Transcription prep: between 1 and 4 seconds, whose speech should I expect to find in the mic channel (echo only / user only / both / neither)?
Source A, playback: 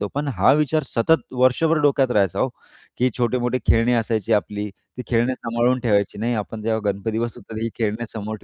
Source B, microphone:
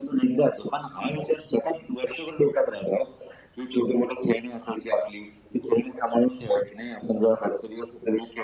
echo only